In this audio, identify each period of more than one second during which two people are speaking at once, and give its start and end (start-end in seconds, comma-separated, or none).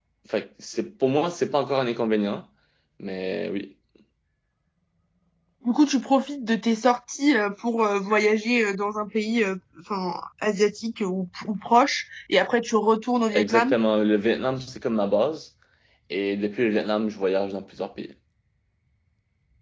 none